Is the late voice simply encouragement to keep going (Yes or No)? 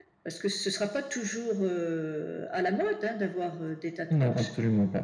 No